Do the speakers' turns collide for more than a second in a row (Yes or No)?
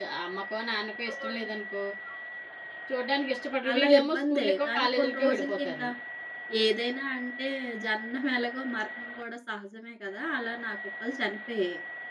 Yes